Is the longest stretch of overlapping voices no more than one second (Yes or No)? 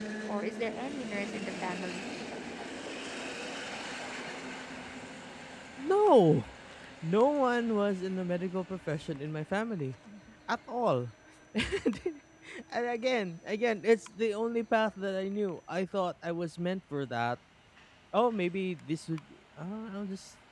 Yes